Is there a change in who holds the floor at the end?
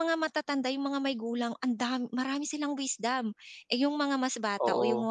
No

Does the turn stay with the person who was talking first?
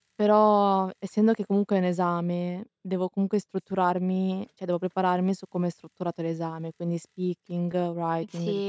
No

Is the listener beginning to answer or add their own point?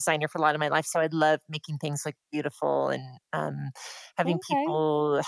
No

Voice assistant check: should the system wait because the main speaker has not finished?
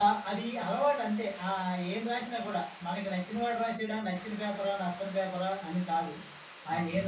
Yes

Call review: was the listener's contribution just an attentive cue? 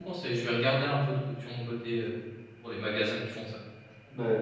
No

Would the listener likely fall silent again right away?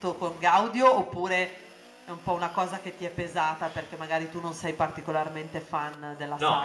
No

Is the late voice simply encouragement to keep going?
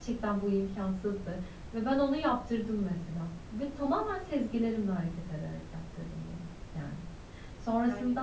Yes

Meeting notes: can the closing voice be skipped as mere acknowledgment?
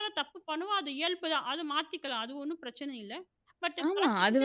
No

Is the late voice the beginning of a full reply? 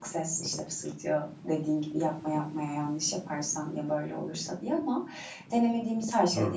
No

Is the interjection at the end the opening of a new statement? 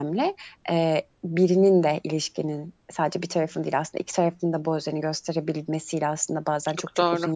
No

